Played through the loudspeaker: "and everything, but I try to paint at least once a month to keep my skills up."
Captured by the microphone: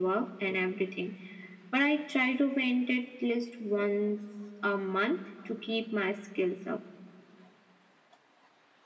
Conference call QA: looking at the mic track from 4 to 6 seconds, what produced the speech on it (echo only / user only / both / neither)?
echo only